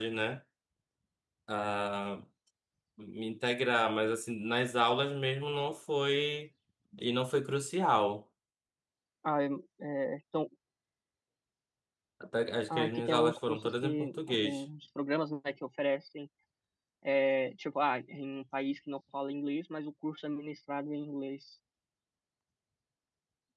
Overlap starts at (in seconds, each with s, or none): 12.7 s